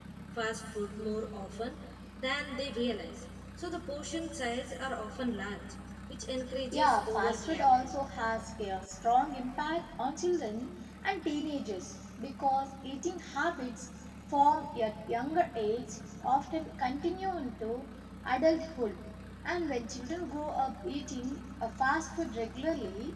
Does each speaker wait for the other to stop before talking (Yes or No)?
No